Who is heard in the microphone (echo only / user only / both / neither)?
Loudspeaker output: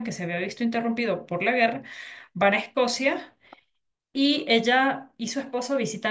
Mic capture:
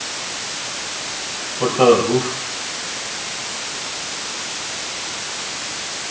user only